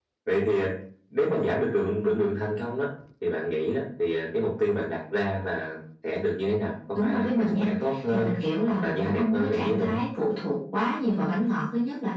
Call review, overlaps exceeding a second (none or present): present